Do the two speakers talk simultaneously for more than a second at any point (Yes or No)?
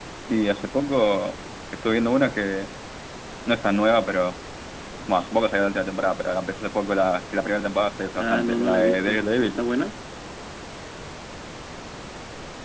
Yes